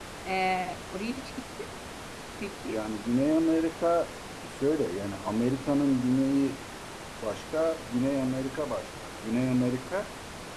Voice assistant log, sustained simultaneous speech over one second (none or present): none